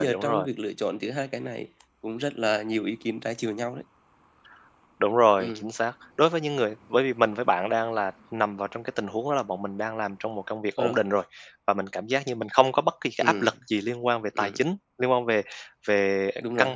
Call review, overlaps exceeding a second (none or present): none